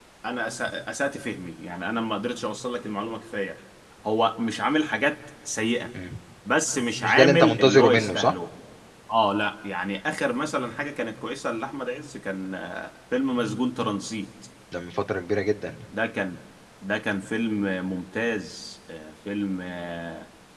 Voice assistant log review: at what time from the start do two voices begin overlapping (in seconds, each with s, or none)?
7.0 s